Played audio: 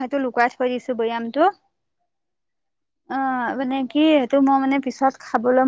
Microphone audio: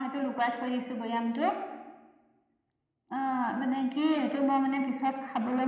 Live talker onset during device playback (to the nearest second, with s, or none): none